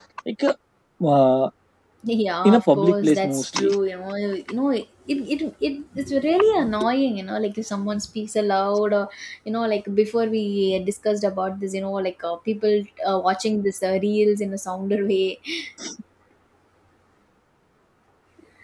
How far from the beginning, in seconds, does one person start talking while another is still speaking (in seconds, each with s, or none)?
2.4 s